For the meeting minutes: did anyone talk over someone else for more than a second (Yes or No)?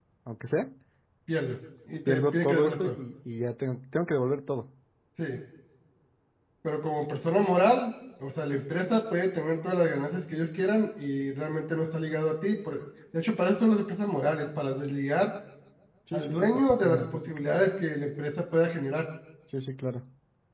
Yes